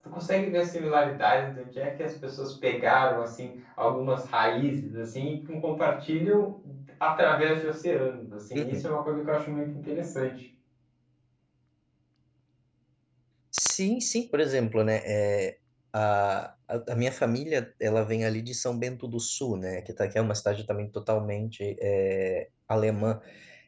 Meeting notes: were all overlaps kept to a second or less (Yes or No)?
Yes